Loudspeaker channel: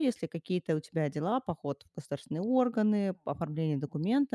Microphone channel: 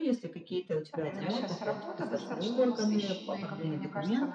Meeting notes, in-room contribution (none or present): present